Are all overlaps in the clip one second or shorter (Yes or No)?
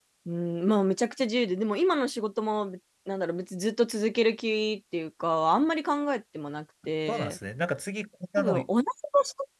Yes